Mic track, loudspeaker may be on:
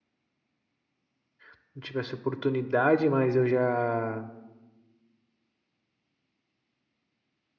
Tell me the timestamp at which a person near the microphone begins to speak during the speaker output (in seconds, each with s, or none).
1.5 s